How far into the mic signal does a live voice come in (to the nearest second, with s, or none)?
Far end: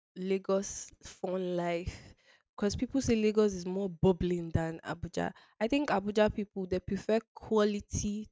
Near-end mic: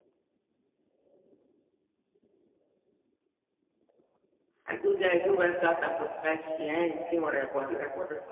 5 s